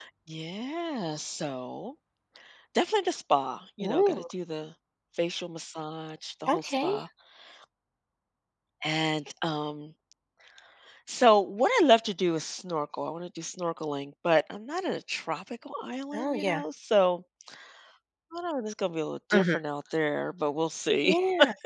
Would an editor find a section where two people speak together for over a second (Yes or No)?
No